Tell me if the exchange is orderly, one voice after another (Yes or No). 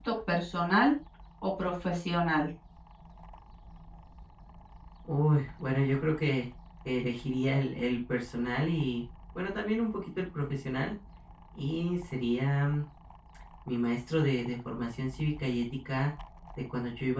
Yes